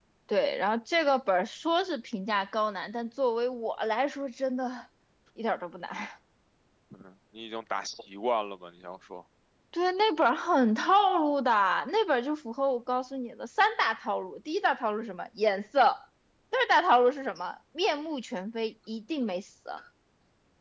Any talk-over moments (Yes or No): No